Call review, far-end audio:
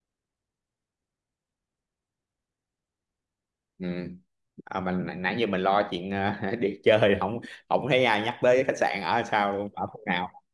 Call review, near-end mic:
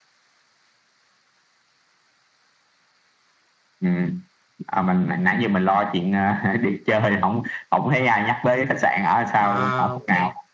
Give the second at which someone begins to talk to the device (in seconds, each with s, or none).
9.4 s